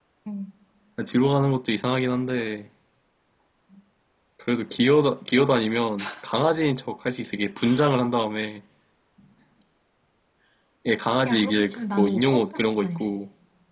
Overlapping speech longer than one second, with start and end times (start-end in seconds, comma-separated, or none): 11.2-13.1